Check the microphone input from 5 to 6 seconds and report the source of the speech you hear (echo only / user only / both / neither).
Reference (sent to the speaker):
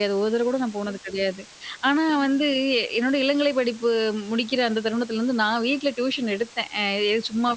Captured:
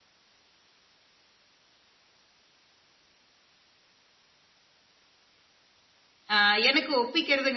neither